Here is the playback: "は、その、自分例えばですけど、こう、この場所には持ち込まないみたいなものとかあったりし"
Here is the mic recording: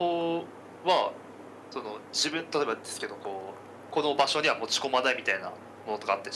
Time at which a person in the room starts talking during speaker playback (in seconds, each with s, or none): none